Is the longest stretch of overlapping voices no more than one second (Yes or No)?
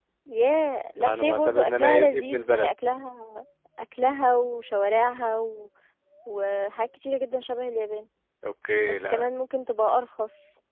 No